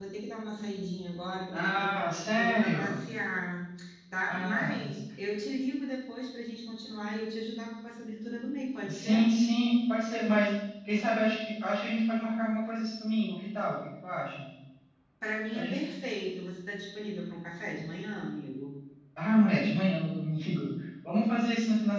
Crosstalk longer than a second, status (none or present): present